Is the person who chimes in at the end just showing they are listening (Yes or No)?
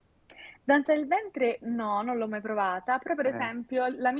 Yes